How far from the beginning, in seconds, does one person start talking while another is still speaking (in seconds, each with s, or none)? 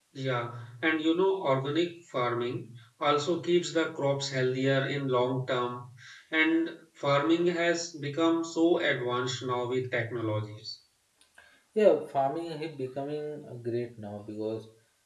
none